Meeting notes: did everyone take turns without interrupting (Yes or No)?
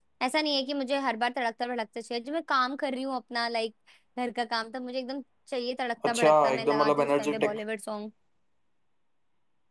No